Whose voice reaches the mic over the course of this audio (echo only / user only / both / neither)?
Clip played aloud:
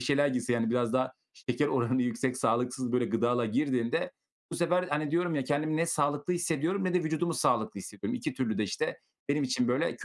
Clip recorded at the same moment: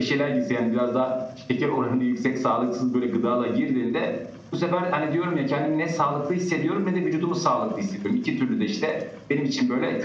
echo only